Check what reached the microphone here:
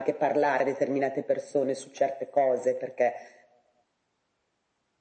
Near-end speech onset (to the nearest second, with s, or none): none